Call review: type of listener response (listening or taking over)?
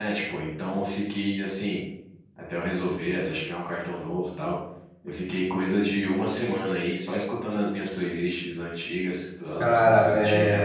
taking over